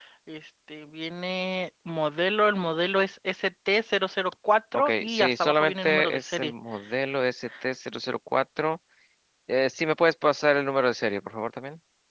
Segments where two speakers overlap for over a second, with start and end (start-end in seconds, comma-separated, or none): 4.7-6.5